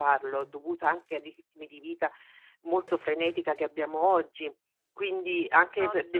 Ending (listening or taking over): listening